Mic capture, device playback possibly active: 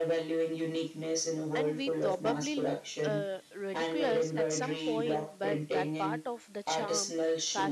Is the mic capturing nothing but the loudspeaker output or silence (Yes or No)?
No